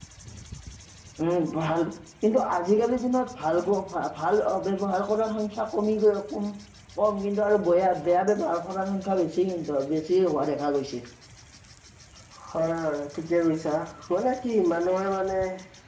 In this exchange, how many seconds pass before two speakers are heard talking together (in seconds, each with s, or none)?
none